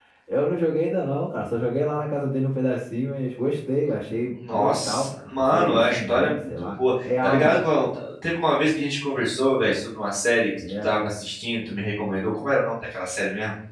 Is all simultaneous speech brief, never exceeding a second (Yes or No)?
No